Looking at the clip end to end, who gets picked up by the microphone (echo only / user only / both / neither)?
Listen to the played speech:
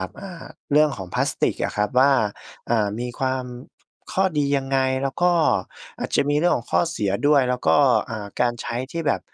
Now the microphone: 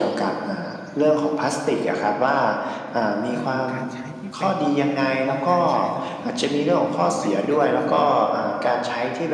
both